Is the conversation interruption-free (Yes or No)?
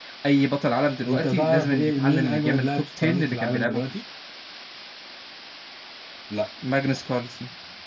No